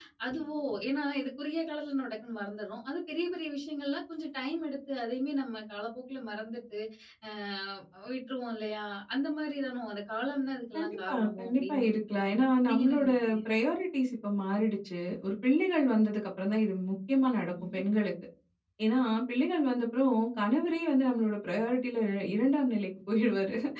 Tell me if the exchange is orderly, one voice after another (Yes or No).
No